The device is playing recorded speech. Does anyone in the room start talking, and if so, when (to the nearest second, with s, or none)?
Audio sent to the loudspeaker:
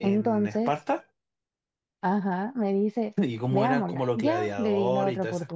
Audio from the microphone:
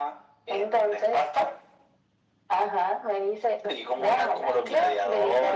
none